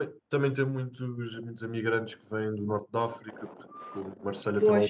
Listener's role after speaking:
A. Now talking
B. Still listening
B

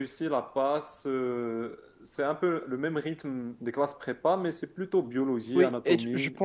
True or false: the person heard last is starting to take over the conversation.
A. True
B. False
A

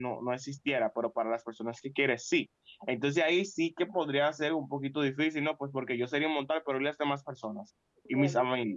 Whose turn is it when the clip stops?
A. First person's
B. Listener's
A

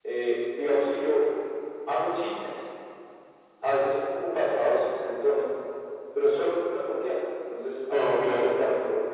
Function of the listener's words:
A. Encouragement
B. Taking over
A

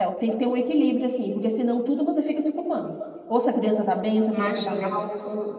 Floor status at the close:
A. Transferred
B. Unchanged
B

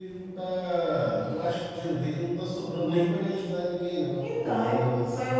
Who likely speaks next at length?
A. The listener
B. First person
A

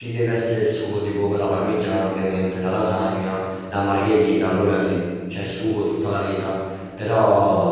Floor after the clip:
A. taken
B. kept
B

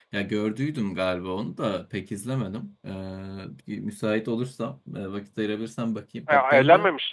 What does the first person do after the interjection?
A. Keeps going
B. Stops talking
B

